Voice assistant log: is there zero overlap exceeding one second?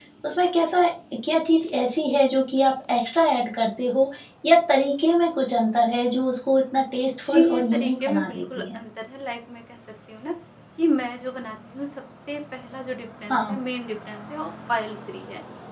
No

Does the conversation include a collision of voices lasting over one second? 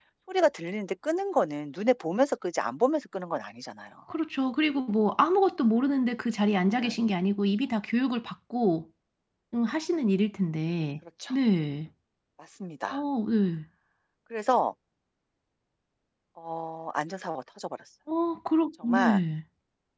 No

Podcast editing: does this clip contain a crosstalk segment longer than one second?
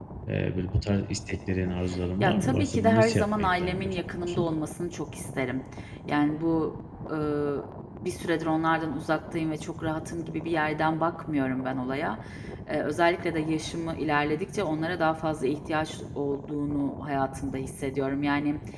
Yes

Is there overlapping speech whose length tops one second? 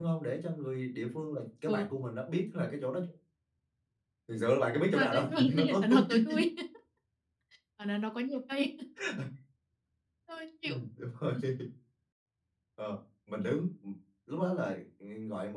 Yes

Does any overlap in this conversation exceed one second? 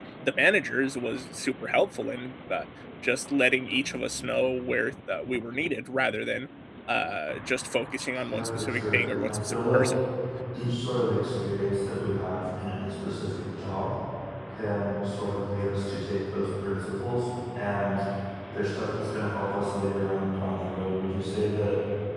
Yes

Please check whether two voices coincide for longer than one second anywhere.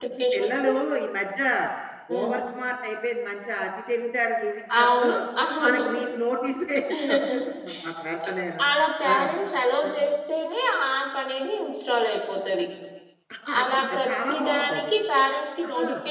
Yes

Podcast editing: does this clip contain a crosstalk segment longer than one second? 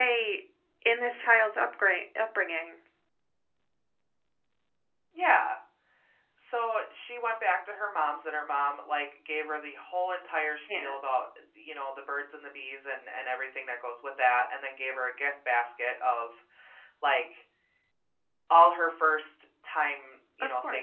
No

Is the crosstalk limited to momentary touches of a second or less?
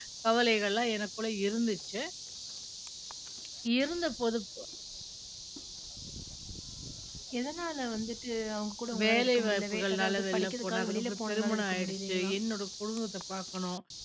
No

